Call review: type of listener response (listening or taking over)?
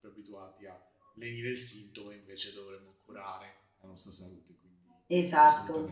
taking over